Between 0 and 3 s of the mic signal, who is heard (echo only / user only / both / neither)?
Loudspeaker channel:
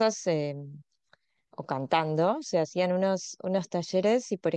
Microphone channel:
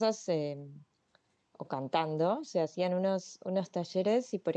echo only